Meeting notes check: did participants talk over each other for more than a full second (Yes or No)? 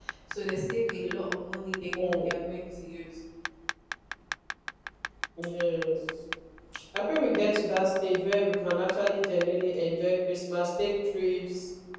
No